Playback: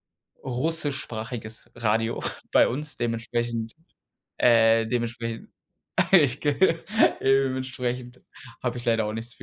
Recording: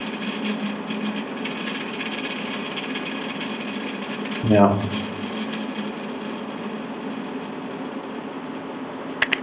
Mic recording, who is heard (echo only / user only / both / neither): user only